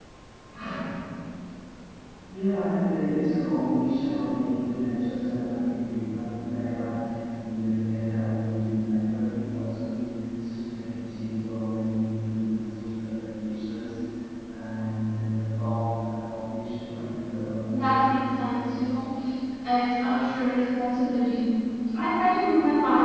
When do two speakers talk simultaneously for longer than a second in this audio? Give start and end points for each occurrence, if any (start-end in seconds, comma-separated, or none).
17.7-18.9